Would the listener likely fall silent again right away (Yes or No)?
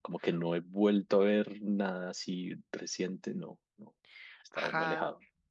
No